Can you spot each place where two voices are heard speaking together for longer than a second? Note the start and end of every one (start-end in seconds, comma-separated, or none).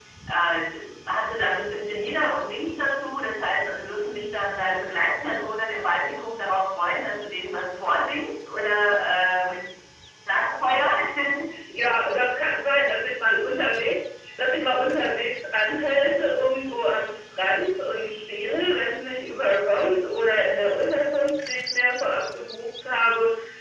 none